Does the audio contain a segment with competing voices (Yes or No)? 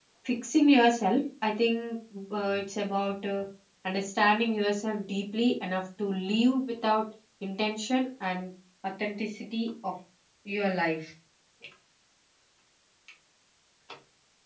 No